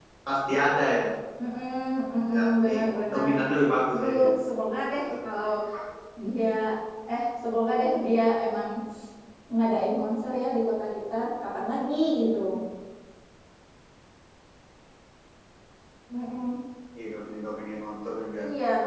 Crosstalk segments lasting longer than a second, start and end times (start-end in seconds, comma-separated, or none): none